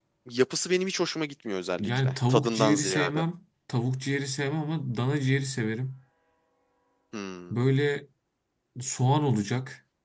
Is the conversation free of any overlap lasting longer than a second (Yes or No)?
No